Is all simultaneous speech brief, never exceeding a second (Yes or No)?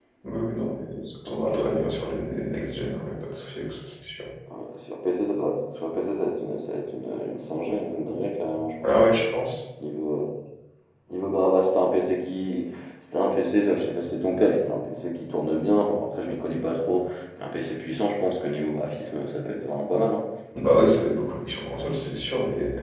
Yes